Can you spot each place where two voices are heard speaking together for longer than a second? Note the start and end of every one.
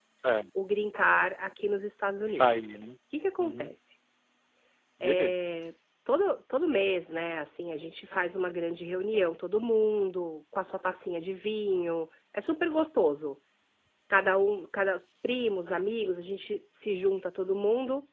none

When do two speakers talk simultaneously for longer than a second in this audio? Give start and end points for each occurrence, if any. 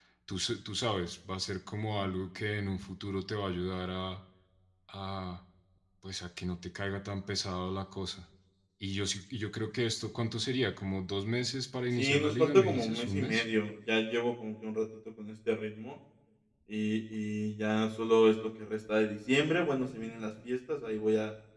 12.0-13.4

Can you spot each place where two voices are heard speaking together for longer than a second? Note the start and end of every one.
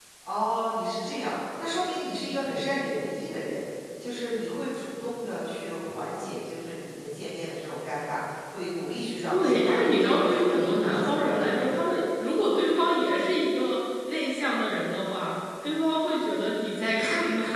9.3-11.7

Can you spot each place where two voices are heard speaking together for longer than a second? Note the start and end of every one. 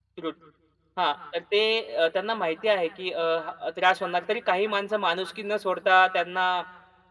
none

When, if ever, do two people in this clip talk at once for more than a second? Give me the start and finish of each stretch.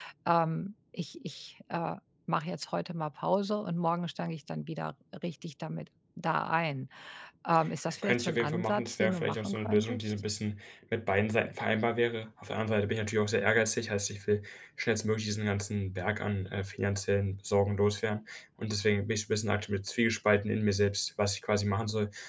8.0-10.1

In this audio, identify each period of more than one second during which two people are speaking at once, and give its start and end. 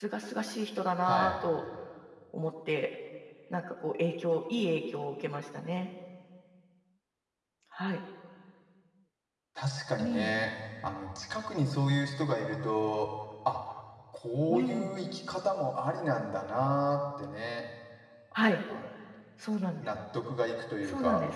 none

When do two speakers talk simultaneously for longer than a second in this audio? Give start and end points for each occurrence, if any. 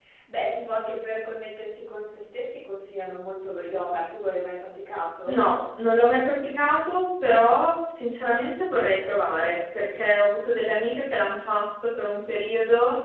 none

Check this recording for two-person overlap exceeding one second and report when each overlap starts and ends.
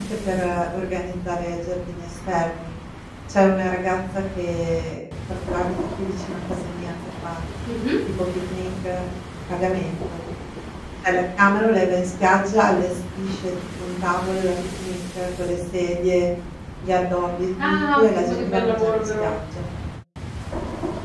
17.6-19.2

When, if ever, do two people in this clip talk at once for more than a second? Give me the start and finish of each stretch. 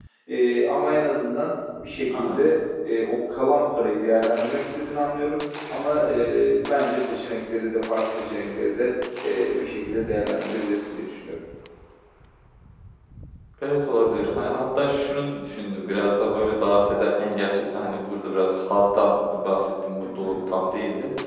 none

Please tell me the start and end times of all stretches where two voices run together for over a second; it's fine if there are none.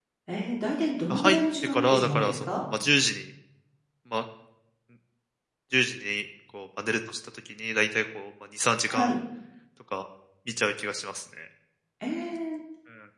1.1-2.6

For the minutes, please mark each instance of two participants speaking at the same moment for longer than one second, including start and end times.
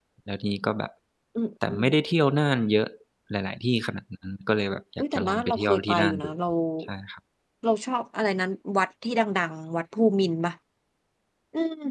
5.0-6.3

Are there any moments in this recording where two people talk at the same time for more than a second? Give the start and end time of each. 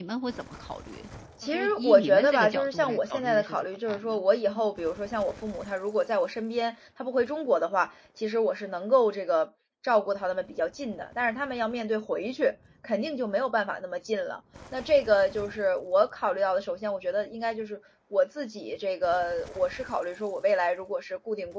1.4-4.7

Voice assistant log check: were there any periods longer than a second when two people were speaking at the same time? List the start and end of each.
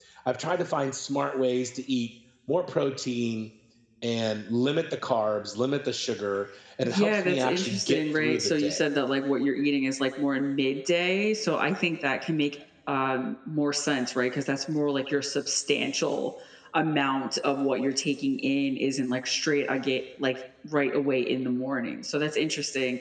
6.8-8.8

